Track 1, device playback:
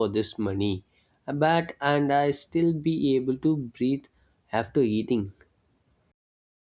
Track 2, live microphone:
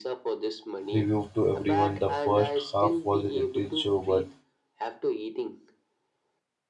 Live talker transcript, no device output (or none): reviewed to everyone. The first half was a little show, but